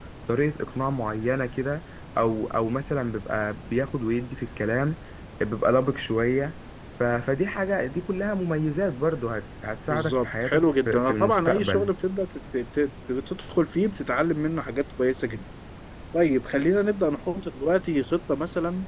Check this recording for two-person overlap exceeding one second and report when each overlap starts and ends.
9.9-11.9

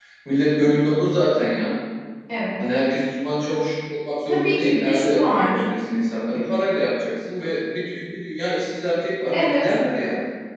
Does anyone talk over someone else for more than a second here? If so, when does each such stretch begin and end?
4.3-5.6

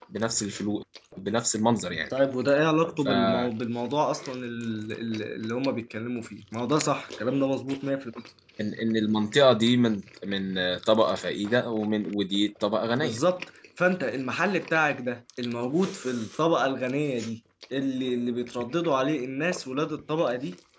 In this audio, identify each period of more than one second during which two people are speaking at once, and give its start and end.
none

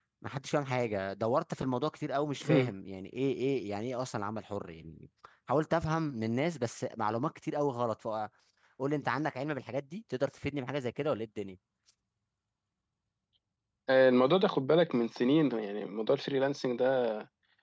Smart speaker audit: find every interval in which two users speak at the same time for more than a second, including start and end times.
none

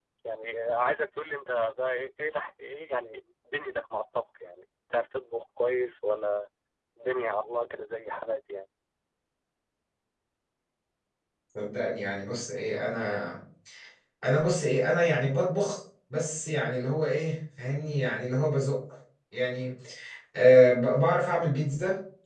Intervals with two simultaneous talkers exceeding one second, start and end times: none

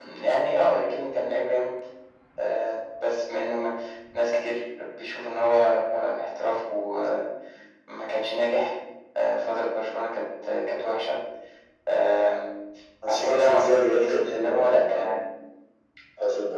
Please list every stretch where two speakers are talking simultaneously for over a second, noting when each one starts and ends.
13.1-15.2

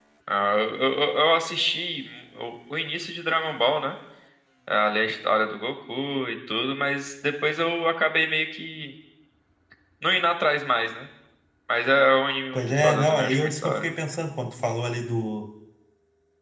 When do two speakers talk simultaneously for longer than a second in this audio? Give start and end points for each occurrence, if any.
12.5-13.8

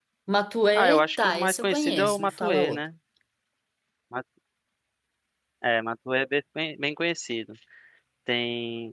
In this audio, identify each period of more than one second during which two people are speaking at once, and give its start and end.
0.7-2.8

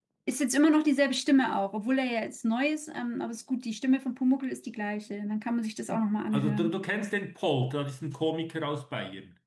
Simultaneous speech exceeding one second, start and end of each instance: none

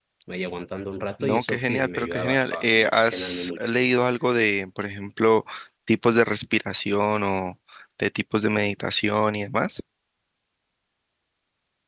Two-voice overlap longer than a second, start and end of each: 1.2-3.6

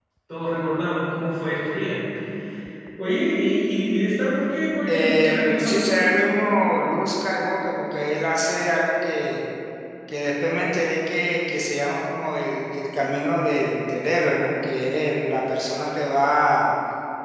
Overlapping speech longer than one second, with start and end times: 4.9-6.1

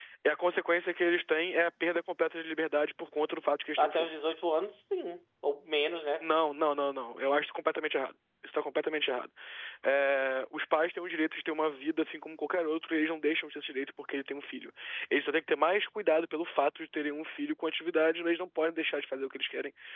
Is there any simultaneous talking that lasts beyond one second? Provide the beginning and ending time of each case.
none

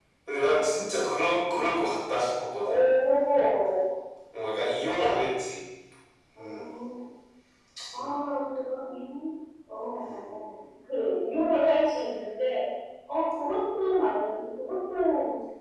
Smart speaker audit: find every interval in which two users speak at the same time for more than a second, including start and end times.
none

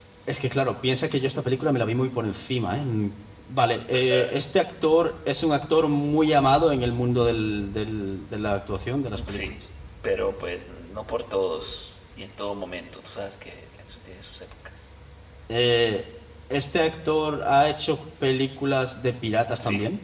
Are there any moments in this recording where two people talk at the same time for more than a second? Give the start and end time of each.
none

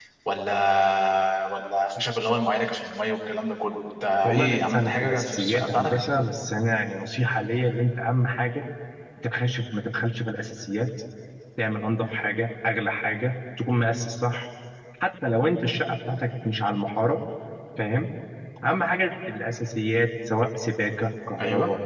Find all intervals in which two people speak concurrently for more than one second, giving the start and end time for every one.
4.2-6.0

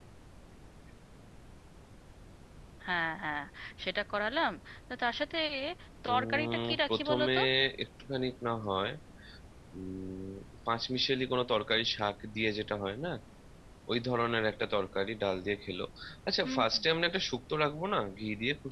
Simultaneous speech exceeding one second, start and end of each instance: 6.1-7.4

